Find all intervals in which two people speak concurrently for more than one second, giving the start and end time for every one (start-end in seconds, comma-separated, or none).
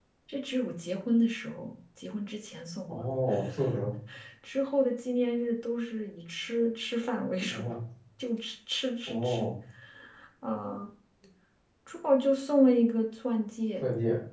none